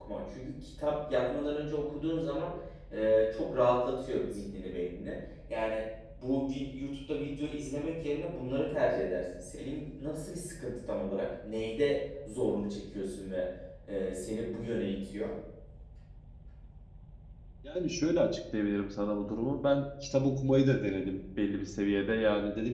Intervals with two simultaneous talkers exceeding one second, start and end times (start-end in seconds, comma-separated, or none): none